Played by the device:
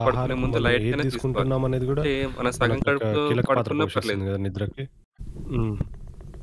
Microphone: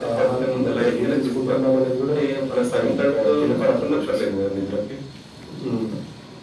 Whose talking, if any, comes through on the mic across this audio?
echo only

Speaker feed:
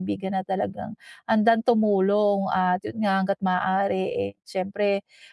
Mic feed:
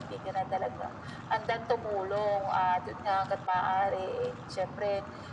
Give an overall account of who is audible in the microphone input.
echo only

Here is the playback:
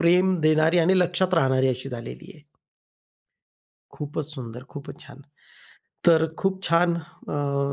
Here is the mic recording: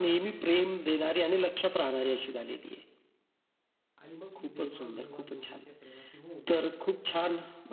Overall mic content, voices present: both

